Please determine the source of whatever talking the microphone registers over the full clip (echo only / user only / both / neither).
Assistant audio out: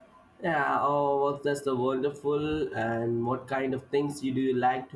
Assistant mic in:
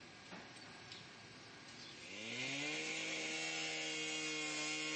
neither